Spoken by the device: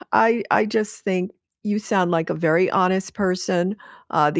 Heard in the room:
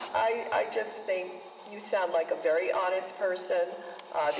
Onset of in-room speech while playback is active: none

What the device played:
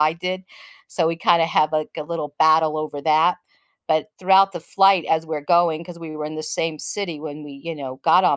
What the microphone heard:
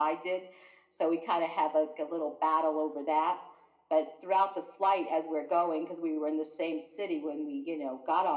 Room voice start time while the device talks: none

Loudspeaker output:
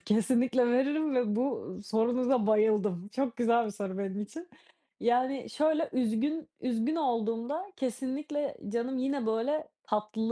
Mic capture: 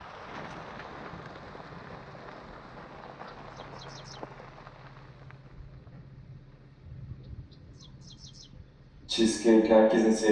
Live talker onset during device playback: 9 s

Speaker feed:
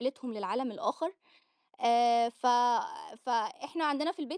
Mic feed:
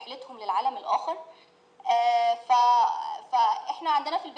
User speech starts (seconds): none

